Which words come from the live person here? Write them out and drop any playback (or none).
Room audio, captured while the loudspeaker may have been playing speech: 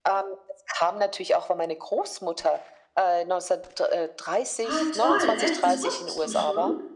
Ah toll, echt, das wusstest du schon?